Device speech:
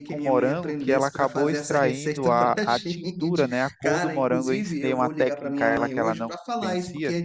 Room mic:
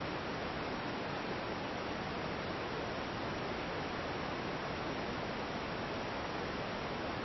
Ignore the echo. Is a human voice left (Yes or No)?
No